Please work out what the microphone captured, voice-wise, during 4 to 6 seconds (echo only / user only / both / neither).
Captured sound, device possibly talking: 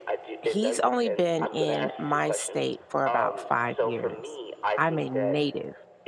both